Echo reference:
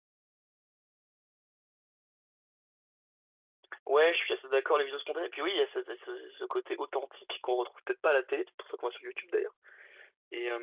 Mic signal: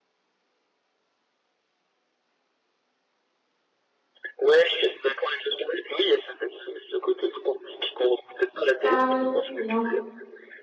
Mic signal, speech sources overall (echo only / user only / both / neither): both